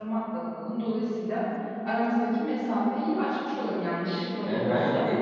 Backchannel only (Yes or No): No